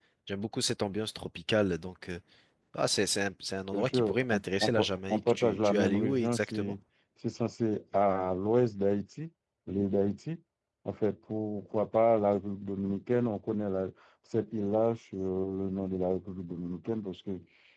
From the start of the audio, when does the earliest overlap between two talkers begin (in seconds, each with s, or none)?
3.7 s